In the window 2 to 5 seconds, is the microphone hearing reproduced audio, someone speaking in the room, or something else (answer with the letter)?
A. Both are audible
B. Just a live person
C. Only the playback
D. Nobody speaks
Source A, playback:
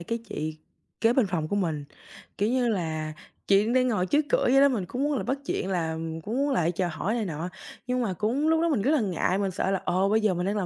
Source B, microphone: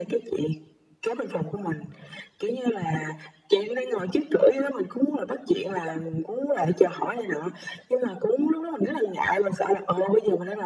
C